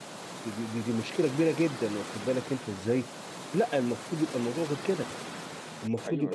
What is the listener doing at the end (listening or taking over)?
listening